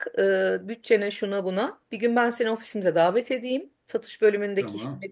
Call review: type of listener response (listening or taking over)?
listening